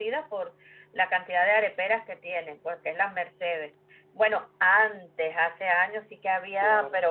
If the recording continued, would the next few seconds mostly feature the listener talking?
No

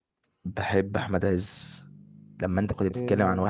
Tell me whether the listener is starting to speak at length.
No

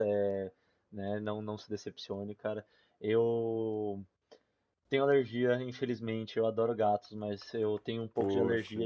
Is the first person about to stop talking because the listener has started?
No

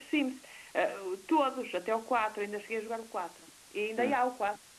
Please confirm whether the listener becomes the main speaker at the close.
No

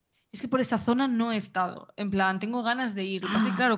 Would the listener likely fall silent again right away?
Yes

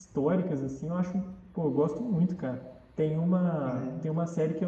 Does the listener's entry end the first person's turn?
No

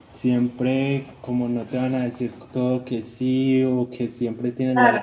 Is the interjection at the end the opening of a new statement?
No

